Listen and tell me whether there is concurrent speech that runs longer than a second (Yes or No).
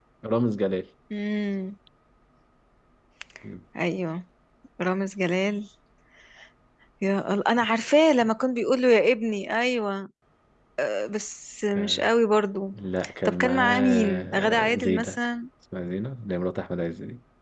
Yes